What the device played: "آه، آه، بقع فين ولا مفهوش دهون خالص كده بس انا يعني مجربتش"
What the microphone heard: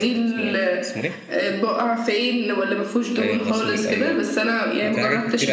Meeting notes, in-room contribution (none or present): present